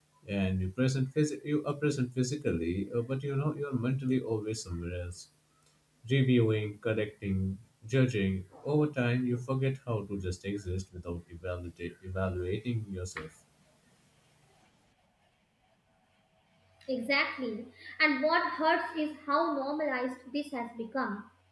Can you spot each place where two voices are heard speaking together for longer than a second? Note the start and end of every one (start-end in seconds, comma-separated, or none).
none